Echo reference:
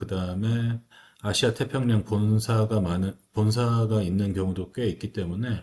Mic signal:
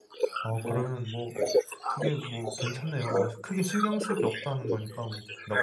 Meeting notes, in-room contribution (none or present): present